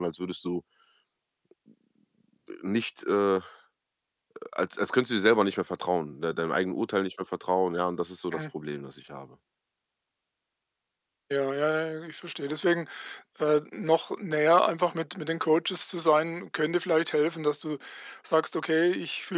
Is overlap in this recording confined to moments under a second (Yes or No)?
Yes